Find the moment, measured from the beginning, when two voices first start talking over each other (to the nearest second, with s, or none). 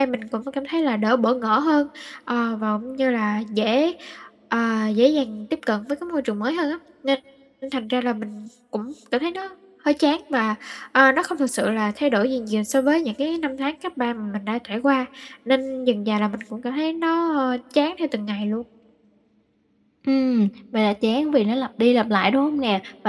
none